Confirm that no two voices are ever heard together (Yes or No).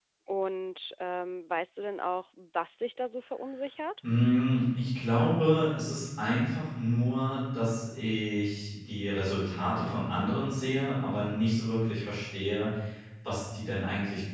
Yes